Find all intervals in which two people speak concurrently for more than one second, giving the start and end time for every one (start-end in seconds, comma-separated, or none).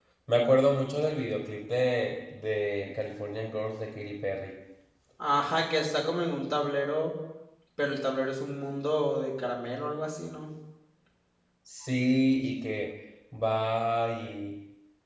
none